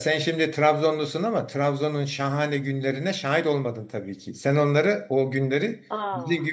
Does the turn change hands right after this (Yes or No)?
No